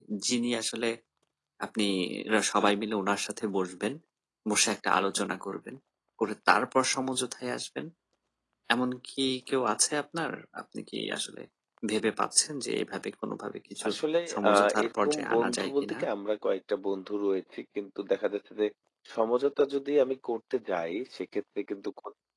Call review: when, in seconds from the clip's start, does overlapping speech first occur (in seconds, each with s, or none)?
14.3 s